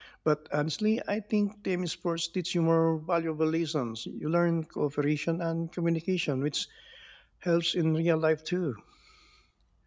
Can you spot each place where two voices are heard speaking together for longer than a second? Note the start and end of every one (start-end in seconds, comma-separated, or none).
none